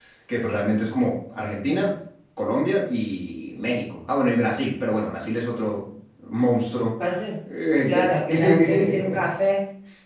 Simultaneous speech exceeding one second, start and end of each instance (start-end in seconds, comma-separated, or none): 7.8-9.2